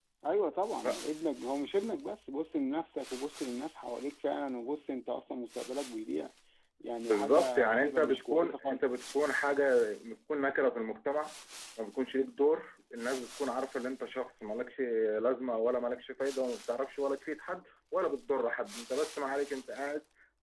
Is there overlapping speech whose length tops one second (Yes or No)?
Yes